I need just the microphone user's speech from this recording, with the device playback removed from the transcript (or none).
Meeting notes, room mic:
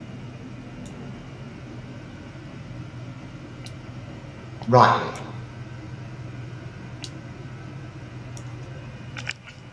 Right.